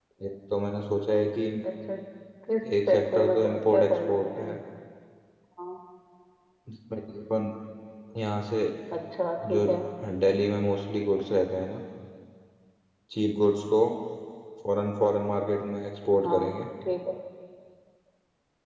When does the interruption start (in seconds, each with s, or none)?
2.9 s